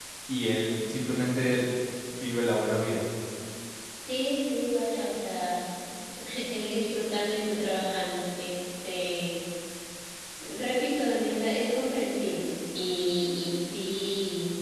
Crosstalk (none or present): none